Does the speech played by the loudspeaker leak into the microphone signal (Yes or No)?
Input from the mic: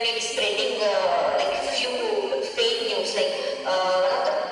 Yes